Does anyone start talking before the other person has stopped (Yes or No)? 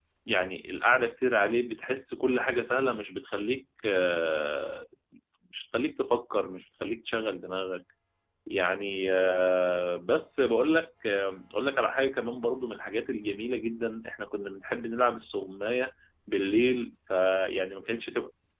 No